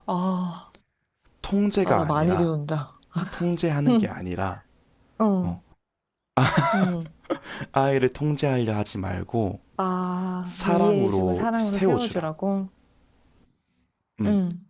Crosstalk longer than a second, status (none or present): present